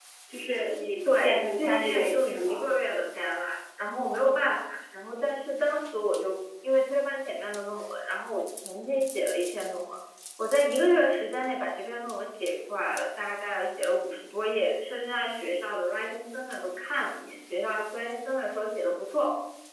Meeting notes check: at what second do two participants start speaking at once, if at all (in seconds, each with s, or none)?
1.2 s